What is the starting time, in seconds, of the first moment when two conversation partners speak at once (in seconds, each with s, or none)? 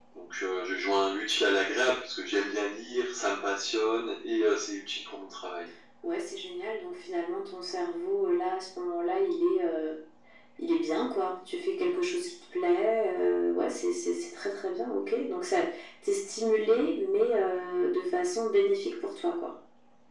none